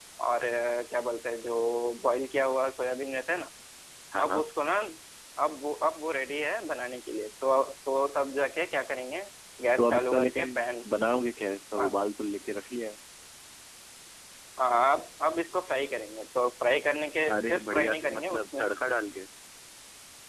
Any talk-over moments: Yes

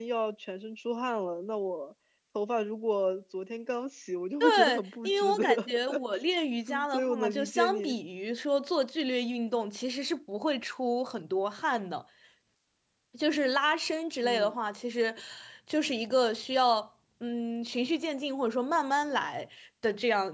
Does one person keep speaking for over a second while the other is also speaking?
Yes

